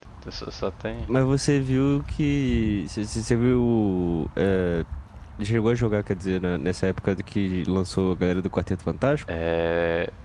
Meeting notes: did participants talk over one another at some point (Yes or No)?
No